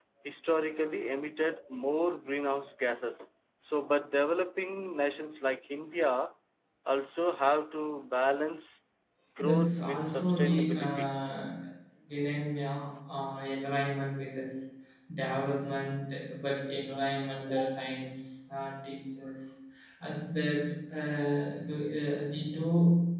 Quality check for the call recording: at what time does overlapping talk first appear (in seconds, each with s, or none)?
9.4 s